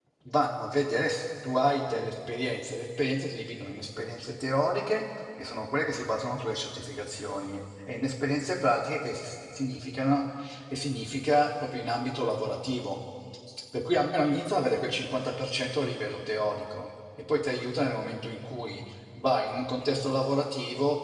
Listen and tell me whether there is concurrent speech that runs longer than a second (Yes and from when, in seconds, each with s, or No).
No